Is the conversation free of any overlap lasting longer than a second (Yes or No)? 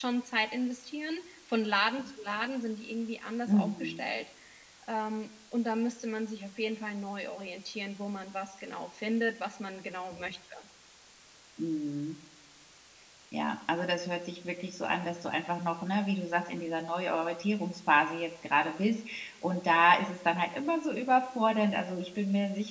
Yes